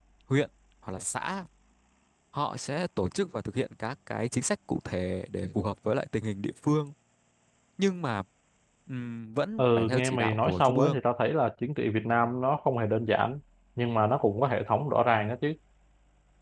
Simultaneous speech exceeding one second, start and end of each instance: 9.6-11.0

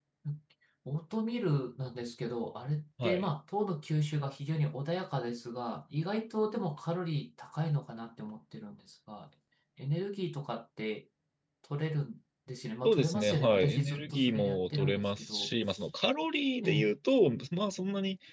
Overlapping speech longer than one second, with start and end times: 12.8-15.5

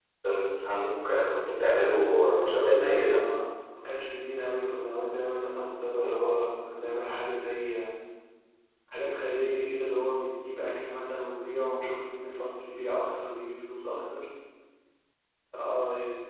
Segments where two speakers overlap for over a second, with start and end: 1.8-3.2

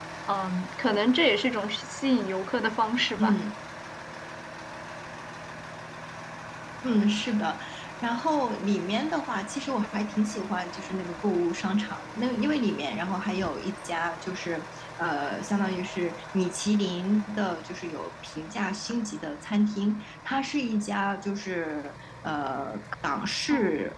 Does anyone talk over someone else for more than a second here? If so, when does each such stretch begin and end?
none

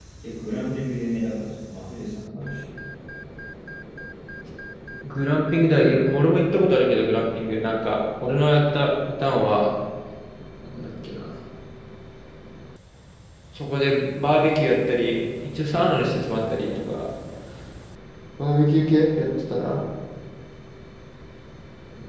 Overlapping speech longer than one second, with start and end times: none

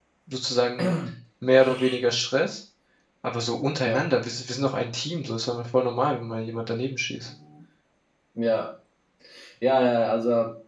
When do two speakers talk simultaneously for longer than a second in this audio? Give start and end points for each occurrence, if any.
none

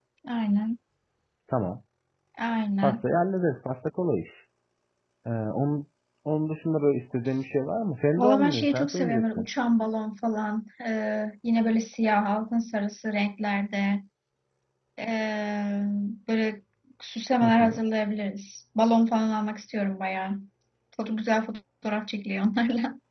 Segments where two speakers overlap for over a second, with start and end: 8.2-9.5

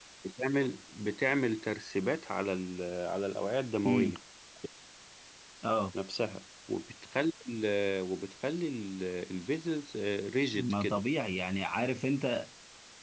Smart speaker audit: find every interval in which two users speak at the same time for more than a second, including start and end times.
none

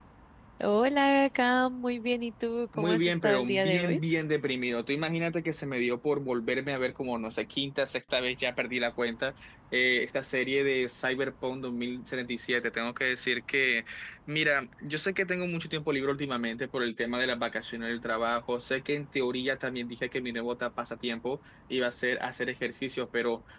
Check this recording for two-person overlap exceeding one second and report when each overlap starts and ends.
2.8-4.0

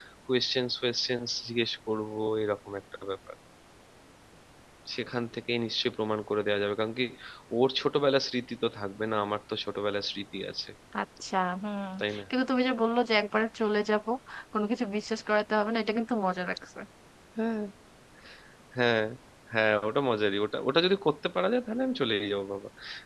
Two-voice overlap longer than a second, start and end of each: none

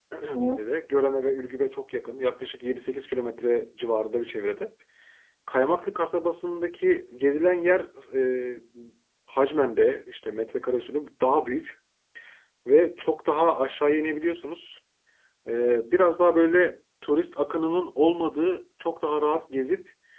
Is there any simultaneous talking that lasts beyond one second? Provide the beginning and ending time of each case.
none

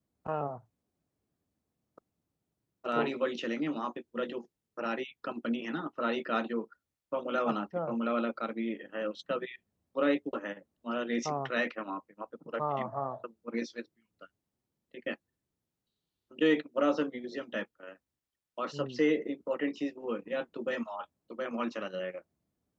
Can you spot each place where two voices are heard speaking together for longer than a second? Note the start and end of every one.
none

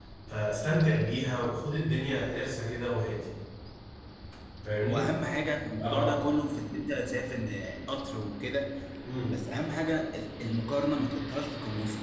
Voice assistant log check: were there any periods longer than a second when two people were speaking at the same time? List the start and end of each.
none

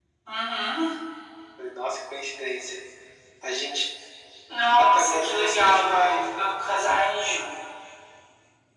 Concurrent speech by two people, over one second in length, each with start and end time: 4.9-6.2

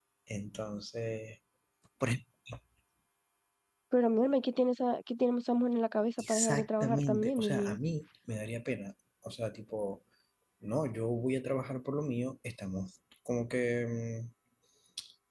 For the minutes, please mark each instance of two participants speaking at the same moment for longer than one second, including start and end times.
6.2-7.8

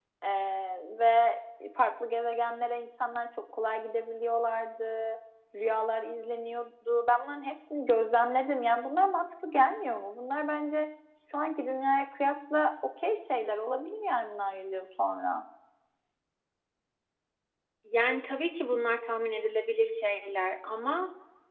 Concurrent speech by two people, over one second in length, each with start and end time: none

